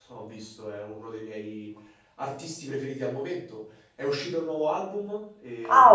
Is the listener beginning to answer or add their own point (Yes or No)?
Yes